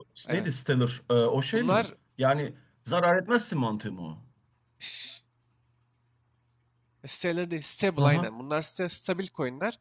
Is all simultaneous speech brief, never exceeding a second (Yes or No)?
Yes